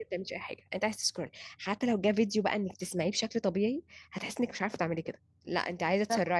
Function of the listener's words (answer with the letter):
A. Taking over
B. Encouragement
B